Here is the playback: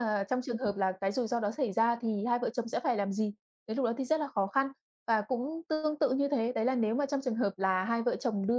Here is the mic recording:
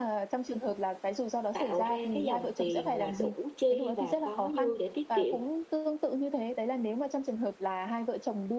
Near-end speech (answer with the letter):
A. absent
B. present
B